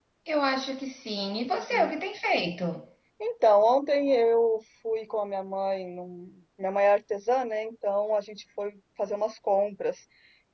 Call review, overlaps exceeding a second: none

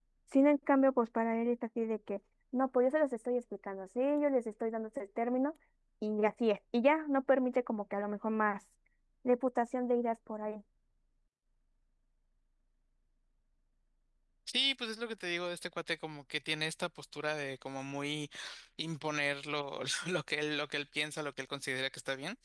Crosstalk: none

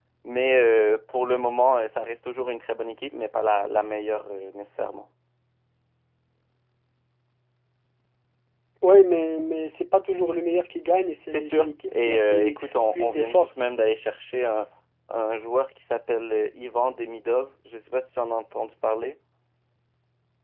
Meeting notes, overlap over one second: present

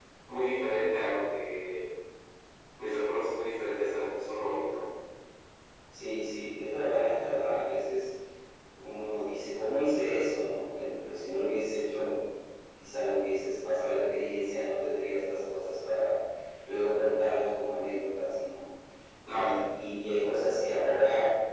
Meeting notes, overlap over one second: none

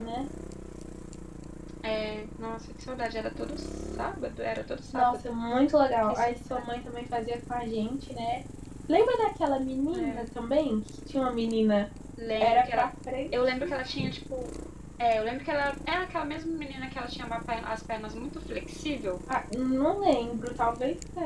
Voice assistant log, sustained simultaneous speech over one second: none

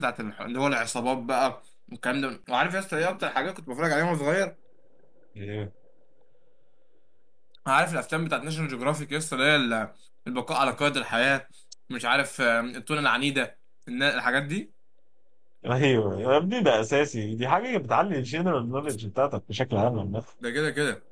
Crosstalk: none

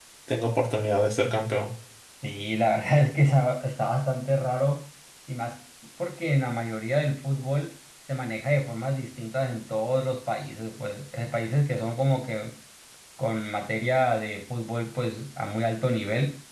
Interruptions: none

